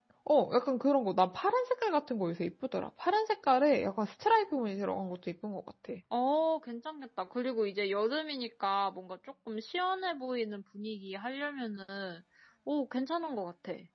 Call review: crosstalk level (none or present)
none